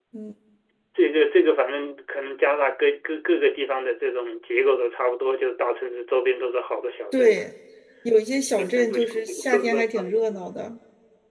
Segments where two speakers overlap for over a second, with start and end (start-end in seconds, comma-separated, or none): 8.6-10.4